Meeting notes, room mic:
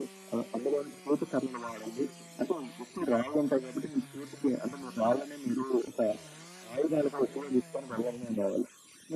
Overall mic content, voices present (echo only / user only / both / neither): echo only